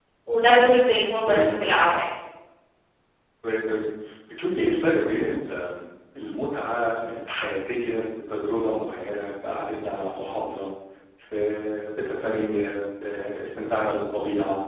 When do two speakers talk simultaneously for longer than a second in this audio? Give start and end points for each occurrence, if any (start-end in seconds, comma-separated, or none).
none